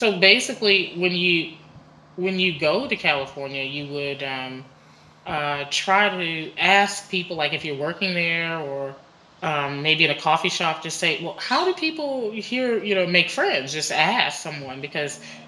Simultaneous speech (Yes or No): No